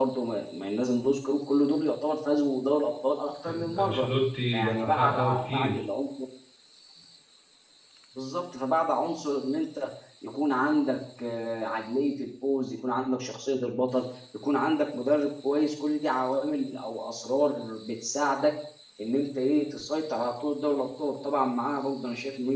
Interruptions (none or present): present